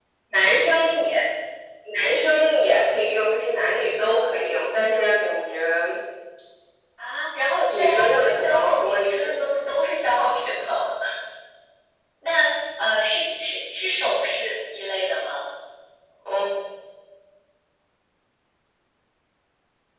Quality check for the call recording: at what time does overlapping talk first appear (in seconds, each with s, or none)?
7.7 s